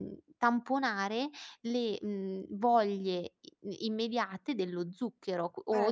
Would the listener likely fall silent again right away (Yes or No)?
No